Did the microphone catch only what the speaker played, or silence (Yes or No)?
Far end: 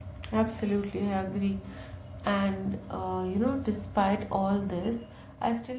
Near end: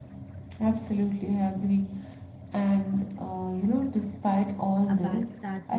No